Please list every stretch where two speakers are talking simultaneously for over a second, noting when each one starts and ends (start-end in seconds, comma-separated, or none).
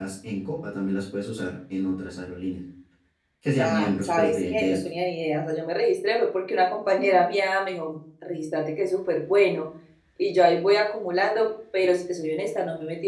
3.6-4.8